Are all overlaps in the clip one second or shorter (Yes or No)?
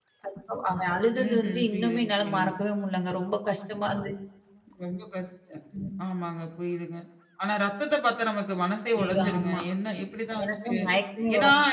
No